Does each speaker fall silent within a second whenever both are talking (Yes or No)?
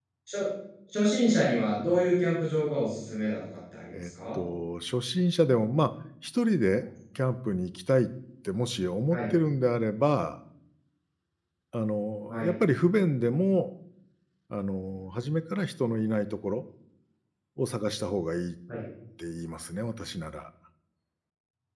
Yes